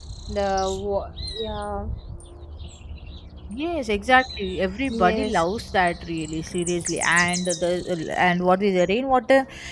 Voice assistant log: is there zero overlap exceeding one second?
Yes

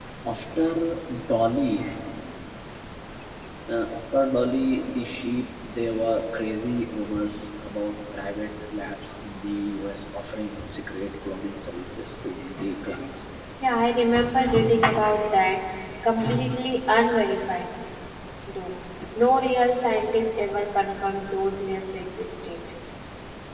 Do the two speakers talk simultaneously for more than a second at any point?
No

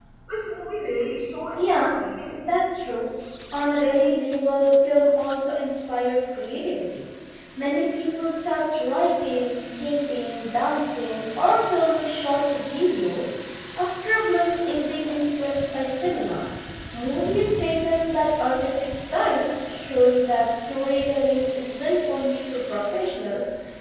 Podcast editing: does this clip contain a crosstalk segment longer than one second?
No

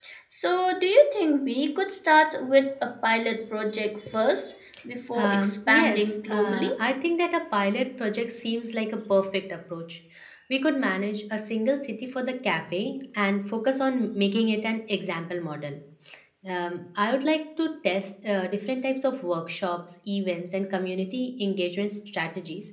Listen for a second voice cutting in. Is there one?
Yes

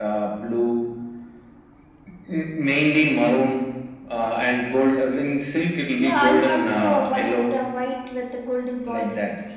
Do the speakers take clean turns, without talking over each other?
No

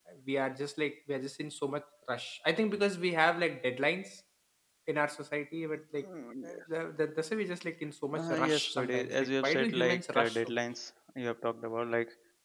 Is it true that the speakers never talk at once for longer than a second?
No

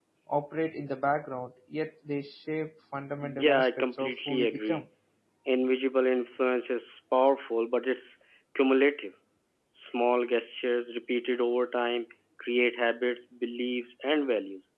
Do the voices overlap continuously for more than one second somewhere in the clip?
Yes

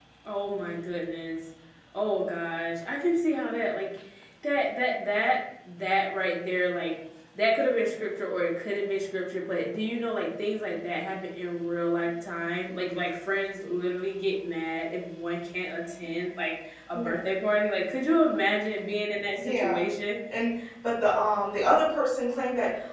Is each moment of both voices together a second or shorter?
Yes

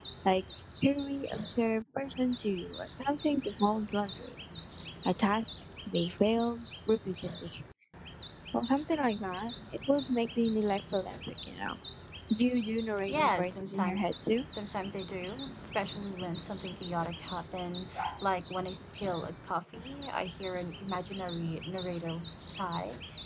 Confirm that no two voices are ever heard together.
No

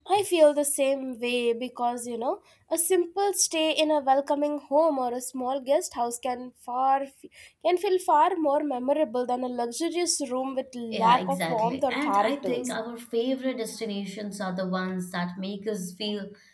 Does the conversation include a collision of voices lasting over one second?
Yes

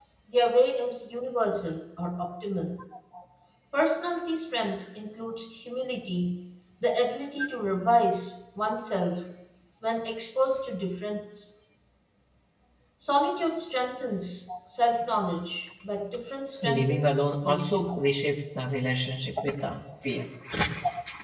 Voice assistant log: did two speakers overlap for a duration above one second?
Yes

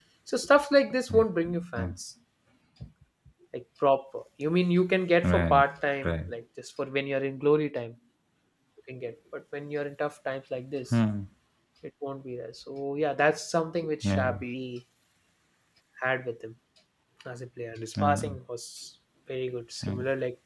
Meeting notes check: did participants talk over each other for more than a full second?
No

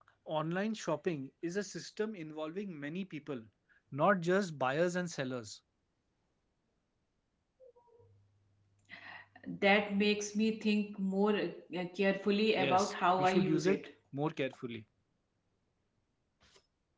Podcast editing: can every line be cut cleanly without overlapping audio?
No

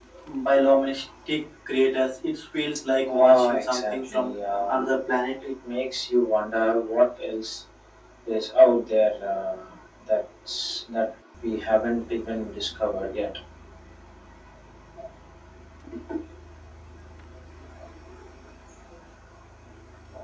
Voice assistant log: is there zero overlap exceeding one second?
No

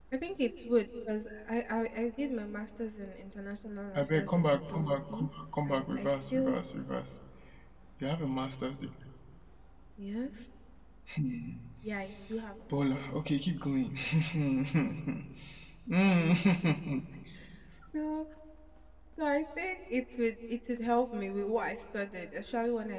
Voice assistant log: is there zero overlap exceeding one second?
No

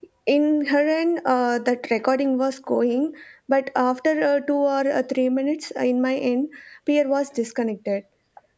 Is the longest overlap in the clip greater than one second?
No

